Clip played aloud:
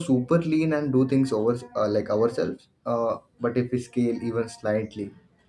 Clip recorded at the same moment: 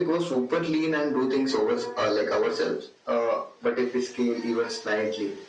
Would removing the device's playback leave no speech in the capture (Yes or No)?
Yes